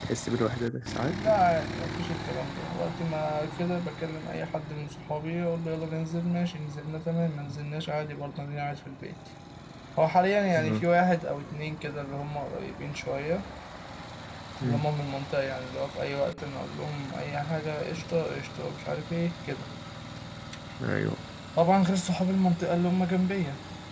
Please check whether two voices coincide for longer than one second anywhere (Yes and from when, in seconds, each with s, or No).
No